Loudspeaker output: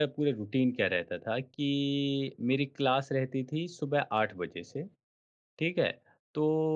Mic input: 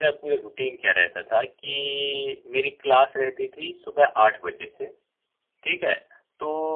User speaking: No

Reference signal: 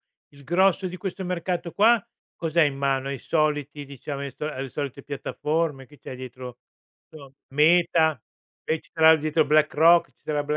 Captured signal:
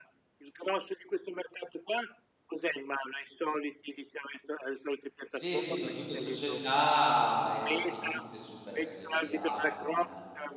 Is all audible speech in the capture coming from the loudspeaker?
No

